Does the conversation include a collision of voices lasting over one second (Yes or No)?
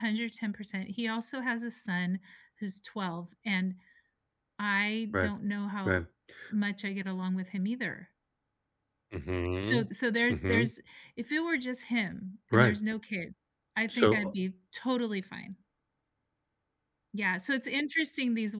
No